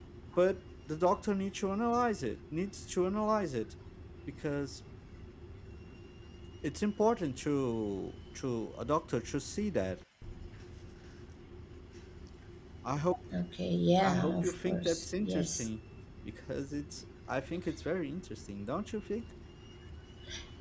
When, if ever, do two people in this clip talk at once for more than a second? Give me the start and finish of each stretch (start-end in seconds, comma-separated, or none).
14.0-15.7